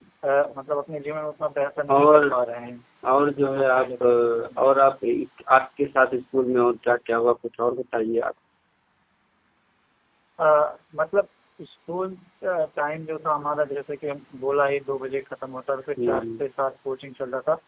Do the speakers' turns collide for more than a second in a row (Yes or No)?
Yes